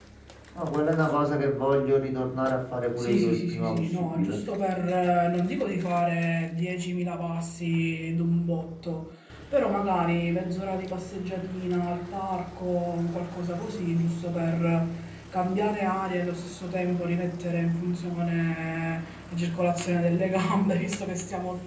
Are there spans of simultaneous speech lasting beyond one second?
Yes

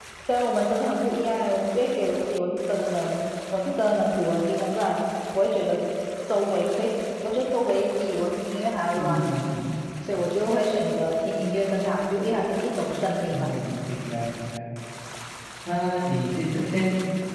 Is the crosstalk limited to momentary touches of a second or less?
Yes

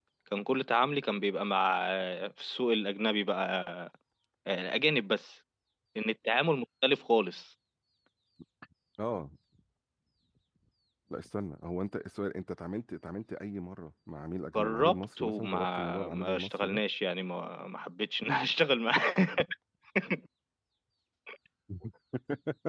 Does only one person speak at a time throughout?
No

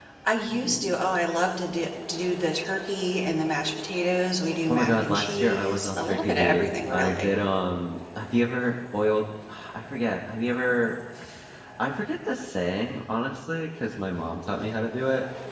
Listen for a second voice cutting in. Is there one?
Yes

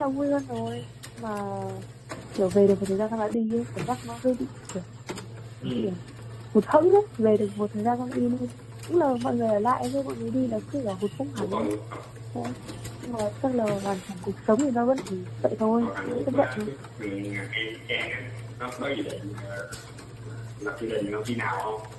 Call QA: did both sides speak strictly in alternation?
No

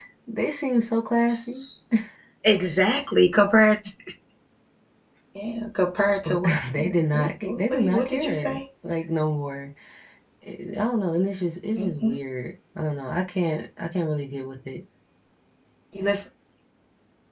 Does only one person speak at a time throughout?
No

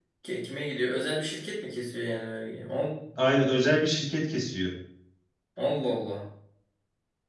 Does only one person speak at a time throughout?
Yes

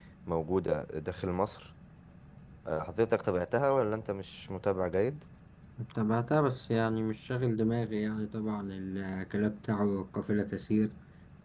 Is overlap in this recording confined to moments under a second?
Yes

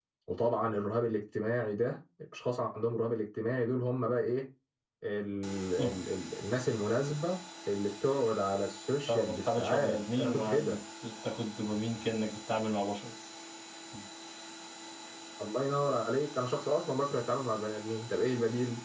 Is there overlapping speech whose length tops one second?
Yes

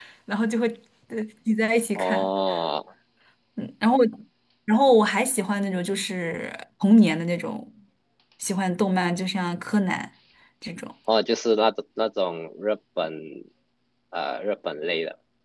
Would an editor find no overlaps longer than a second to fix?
Yes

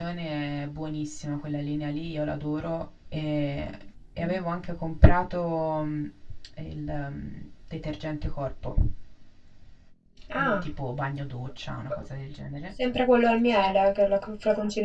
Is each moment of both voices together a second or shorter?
Yes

